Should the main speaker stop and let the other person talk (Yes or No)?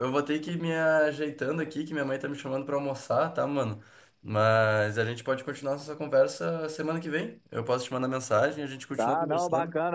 Yes